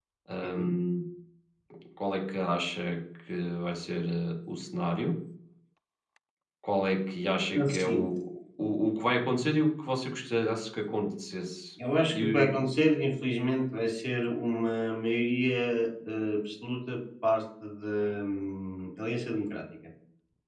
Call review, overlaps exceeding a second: none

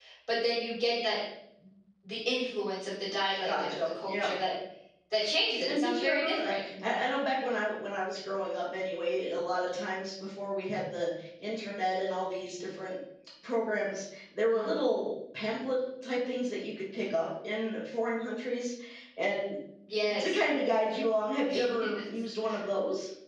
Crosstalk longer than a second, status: present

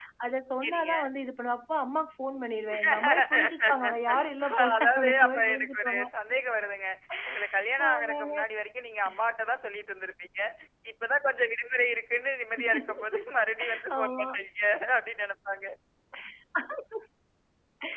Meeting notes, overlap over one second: present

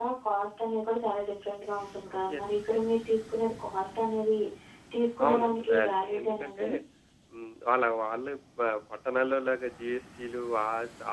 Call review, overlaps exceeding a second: present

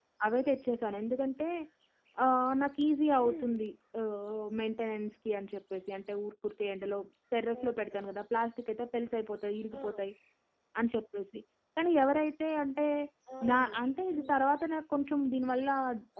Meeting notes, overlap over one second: none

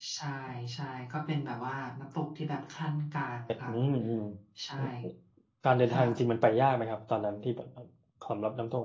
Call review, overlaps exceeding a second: none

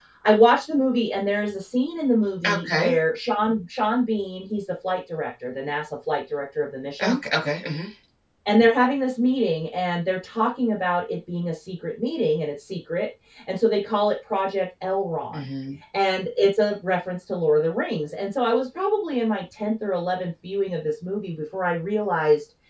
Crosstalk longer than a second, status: none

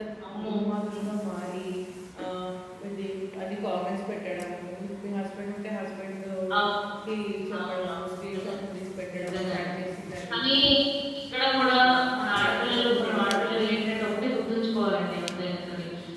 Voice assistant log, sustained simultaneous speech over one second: present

